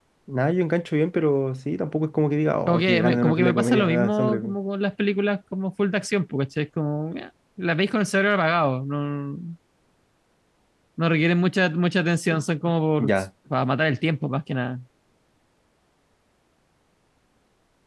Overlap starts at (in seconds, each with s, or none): 2.7 s